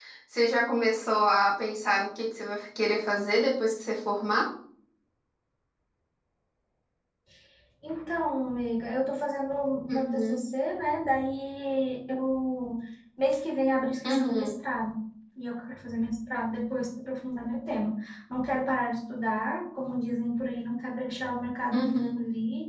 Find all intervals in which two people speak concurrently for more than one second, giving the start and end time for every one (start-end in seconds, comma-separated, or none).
none